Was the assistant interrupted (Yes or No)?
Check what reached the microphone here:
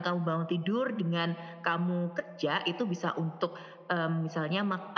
No